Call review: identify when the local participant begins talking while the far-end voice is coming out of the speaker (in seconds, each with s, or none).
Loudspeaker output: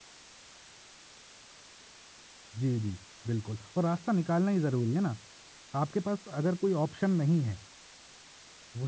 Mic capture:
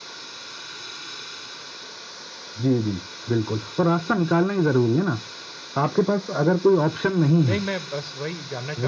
7.5 s